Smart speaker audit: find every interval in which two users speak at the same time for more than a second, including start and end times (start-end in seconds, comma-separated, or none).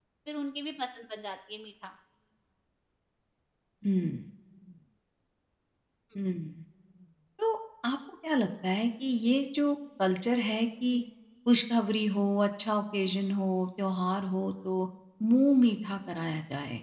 none